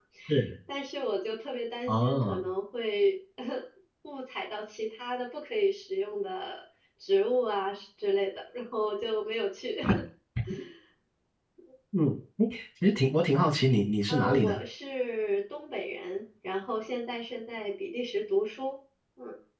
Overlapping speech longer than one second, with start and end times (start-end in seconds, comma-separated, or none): none